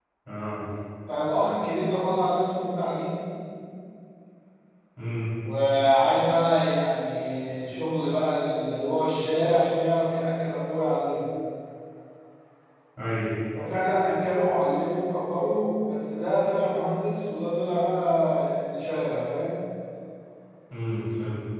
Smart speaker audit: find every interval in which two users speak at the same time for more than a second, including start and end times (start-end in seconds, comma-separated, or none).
none